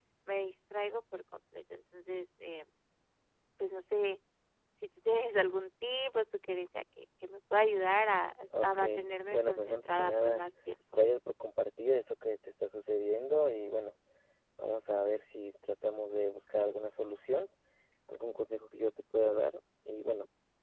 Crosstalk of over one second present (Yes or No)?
Yes